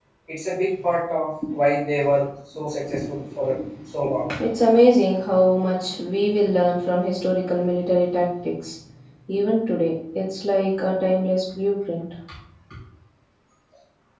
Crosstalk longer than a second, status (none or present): none